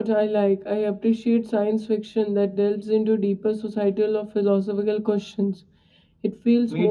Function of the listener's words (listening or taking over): taking over